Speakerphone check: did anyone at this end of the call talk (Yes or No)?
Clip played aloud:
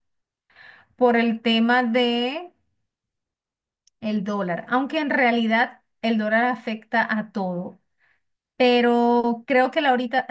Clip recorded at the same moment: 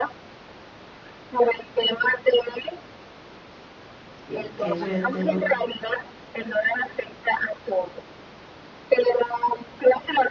Yes